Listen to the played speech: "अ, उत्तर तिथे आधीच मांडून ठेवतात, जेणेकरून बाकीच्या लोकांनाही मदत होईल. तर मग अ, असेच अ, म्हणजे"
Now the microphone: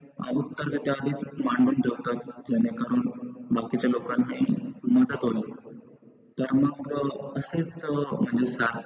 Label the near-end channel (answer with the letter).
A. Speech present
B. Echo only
B